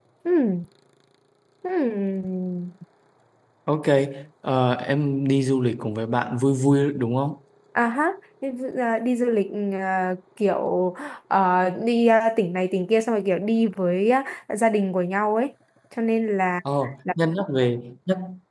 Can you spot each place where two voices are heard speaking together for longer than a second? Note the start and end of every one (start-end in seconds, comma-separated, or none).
none